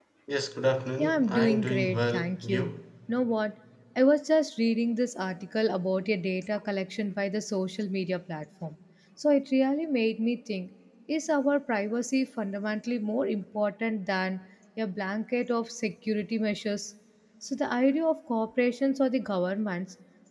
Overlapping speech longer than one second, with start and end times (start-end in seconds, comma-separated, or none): 1.0-2.7